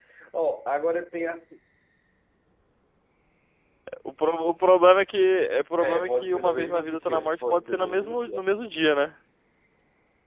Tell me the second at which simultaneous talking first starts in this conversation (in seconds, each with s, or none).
5.8 s